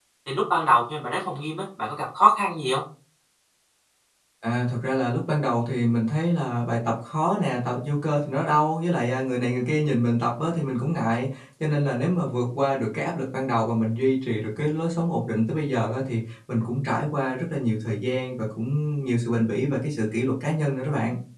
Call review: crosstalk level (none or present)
none